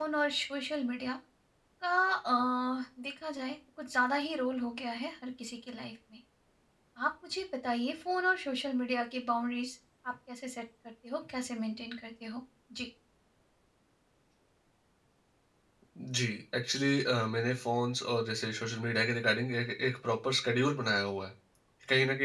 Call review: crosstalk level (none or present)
none